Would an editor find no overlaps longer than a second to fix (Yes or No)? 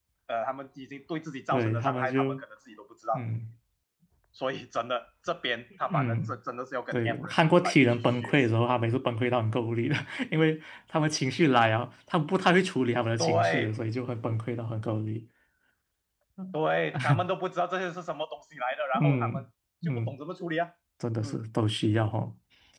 No